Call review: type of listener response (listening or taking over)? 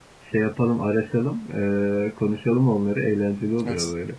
taking over